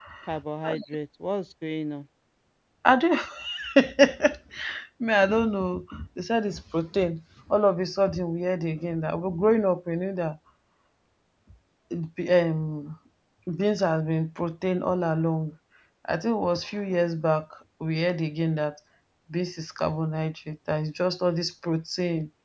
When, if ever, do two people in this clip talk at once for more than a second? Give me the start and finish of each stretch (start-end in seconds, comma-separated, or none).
none